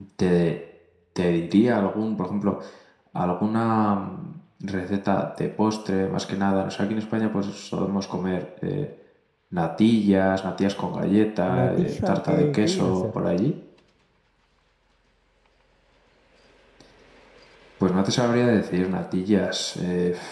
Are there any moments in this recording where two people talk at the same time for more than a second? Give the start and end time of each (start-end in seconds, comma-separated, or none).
11.5-13.2